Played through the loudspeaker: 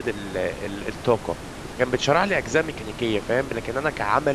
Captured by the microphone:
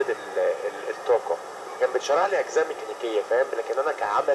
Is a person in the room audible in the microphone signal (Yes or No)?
No